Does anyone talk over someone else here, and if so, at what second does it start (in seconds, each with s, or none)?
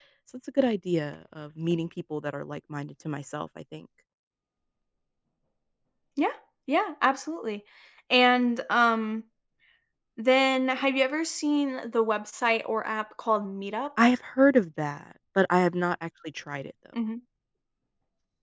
none